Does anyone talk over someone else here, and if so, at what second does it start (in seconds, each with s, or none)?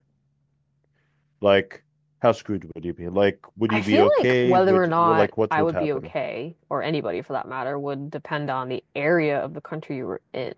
3.7 s